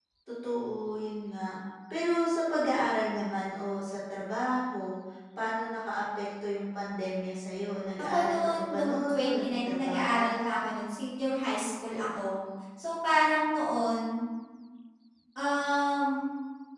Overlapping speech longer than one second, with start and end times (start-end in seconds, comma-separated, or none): 8.0-10.7